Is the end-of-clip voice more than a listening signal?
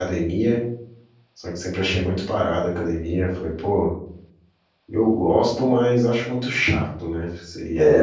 Yes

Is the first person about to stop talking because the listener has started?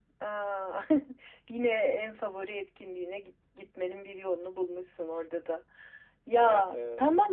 No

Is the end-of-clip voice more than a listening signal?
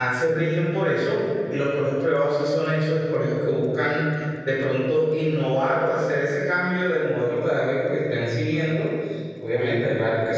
No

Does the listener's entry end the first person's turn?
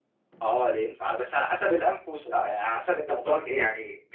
Yes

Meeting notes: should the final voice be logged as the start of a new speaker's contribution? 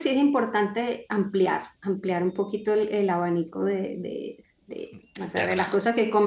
No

